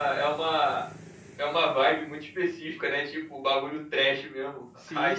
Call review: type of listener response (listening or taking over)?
taking over